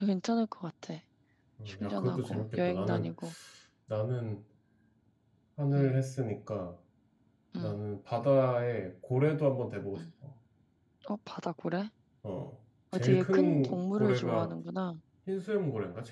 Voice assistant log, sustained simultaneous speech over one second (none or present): present